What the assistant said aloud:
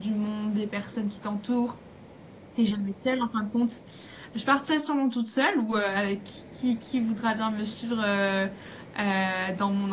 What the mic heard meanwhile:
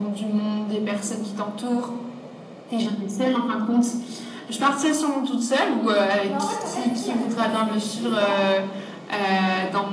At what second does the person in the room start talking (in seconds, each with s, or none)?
6.2 s